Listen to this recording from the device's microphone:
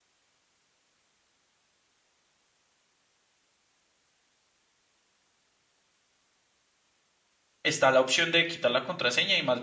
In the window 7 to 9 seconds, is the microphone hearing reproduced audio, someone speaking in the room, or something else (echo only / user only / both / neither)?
user only